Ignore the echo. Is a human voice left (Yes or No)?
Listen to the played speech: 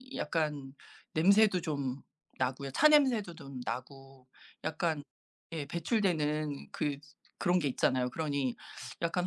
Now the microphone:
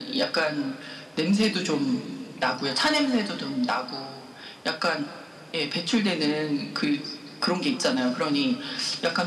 No